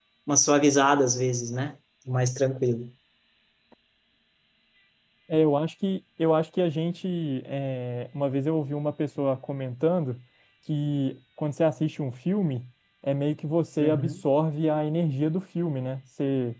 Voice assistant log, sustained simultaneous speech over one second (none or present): none